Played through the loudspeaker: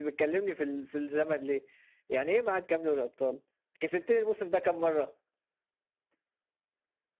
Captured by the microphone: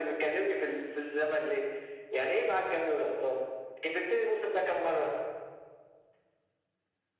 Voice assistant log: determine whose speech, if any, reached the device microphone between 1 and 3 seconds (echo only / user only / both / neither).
echo only